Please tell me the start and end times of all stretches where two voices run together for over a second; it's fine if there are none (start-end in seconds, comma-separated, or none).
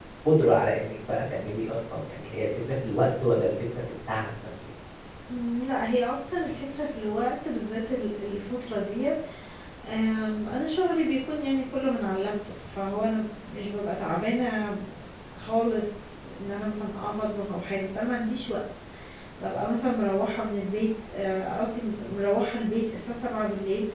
none